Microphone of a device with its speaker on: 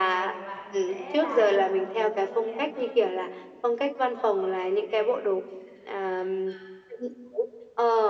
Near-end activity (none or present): present